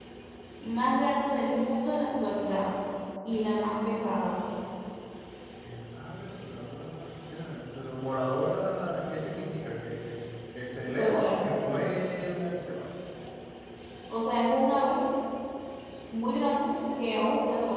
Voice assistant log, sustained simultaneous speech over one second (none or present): none